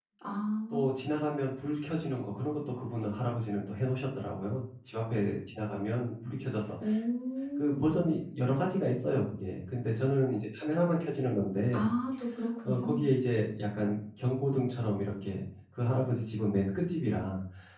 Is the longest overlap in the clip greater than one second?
No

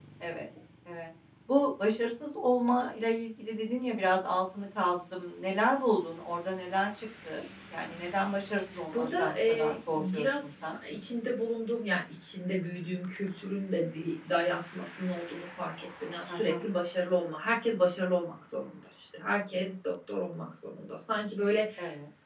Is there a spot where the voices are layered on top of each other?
Yes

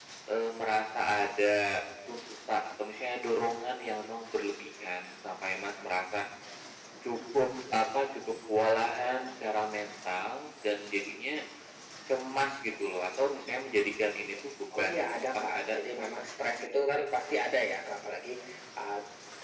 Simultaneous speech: Yes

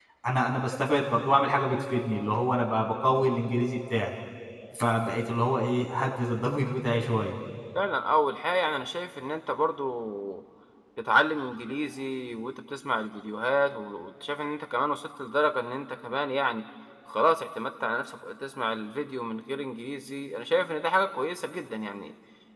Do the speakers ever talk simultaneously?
No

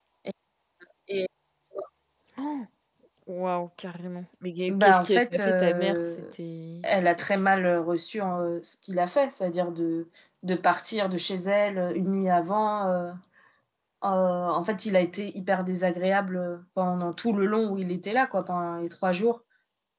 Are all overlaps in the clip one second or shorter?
No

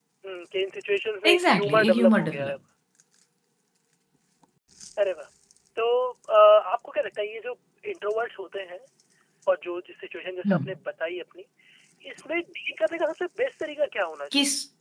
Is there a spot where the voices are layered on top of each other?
Yes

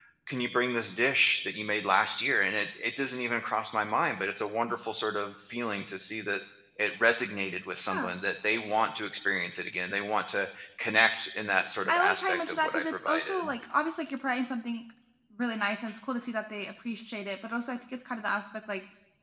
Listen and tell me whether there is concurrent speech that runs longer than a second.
Yes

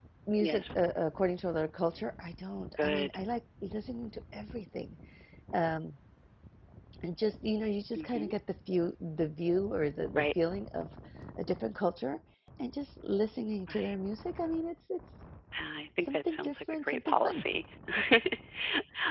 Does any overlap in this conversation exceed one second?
Yes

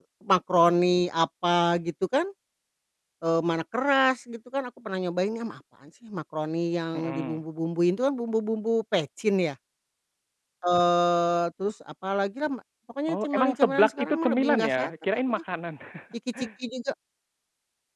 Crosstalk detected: Yes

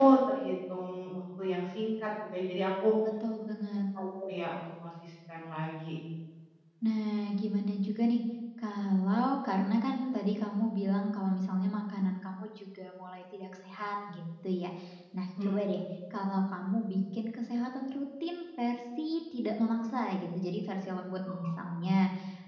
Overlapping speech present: No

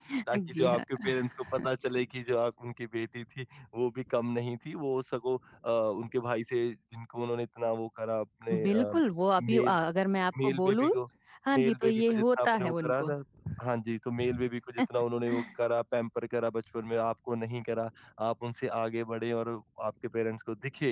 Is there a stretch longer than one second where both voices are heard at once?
Yes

